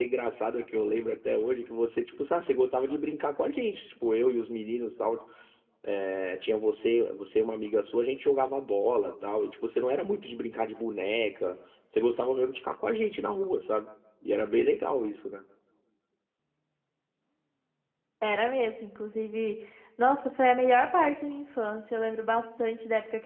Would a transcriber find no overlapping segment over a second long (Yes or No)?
Yes